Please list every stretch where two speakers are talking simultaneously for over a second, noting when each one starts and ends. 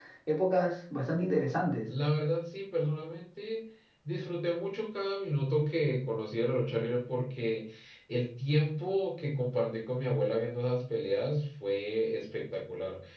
none

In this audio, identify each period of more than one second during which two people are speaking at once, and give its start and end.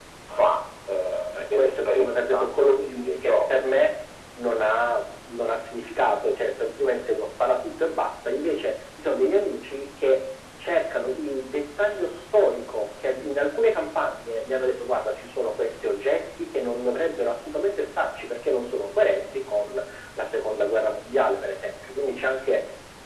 1.4-3.3

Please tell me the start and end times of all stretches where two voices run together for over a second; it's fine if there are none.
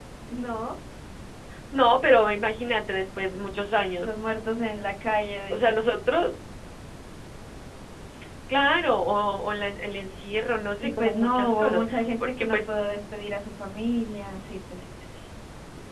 10.8-12.6

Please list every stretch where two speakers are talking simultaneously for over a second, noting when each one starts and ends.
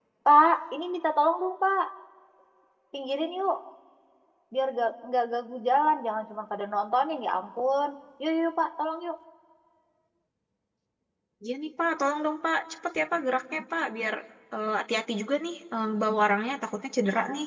none

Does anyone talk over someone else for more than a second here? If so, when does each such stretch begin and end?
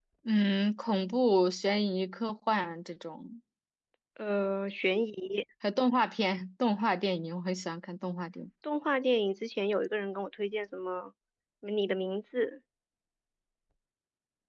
none

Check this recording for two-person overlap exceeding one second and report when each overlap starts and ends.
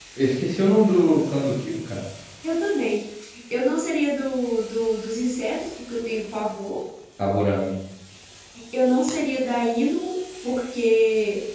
none

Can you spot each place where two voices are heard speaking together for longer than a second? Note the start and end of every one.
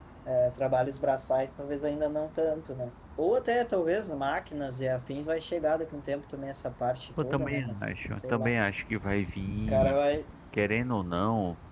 7.2-8.5

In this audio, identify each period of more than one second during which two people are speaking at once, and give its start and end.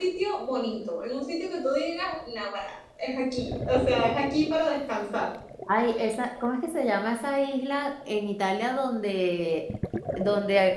none

